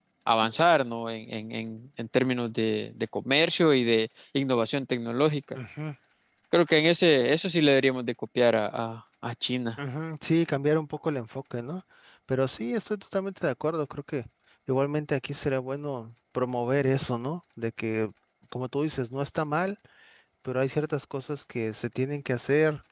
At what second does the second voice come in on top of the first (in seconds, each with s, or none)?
none